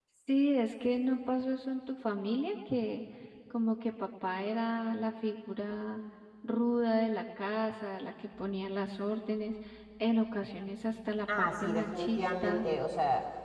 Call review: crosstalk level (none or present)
present